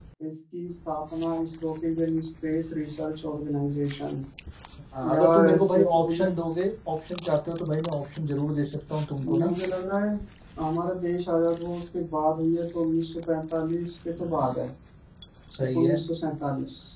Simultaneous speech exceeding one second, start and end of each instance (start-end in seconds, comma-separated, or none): 5.1-6.3